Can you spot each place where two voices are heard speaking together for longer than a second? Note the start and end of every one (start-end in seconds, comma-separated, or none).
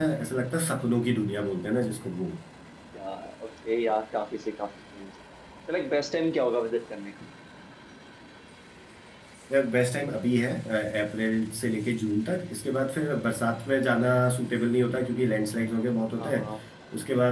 none